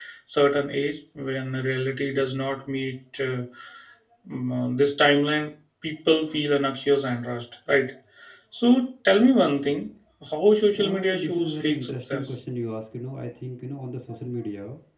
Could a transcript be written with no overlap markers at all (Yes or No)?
No